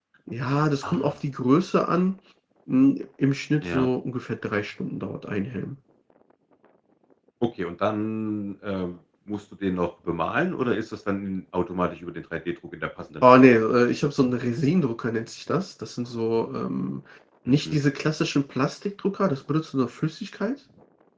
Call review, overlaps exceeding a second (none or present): none